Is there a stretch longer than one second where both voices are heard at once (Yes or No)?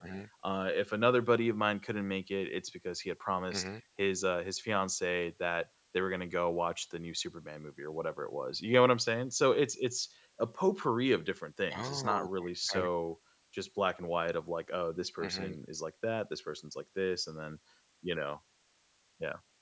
No